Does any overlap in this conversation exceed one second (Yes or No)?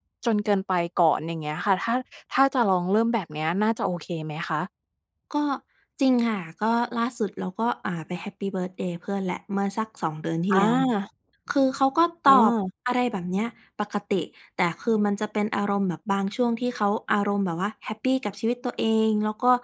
No